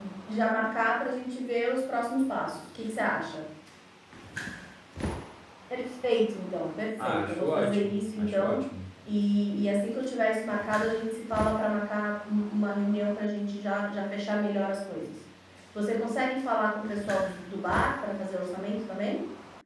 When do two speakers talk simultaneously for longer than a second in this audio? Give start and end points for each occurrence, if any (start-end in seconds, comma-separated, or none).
7.0-8.6